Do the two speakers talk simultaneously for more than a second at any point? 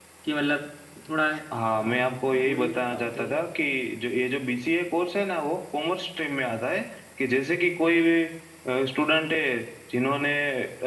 Yes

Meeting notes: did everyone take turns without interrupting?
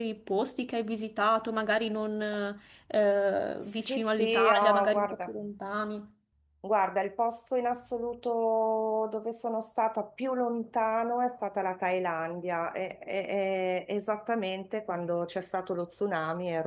No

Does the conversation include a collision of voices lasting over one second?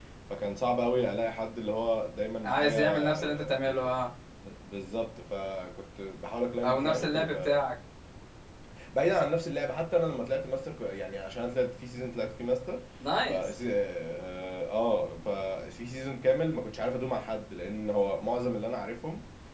Yes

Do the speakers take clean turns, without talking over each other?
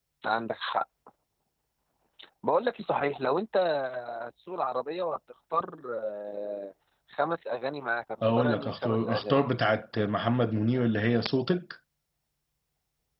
No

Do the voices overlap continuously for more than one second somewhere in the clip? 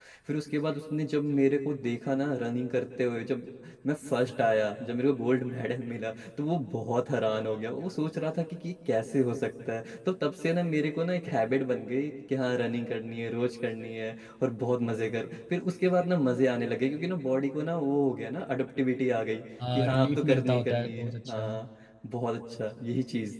Yes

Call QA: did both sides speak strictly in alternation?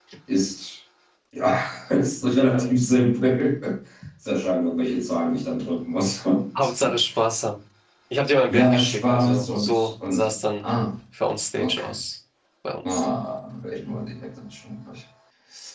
No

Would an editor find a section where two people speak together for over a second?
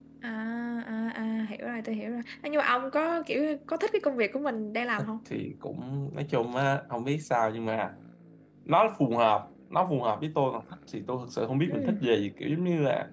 No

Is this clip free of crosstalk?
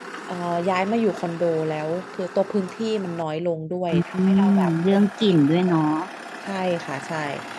No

